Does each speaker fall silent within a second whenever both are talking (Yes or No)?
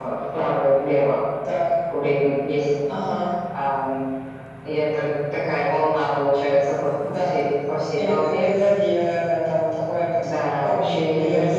No